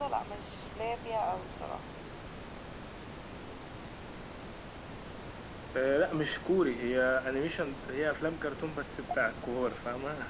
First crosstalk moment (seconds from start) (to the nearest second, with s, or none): none